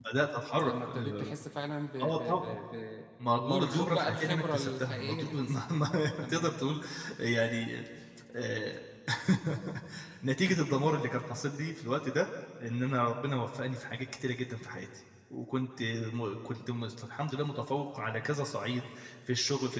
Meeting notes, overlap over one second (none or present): present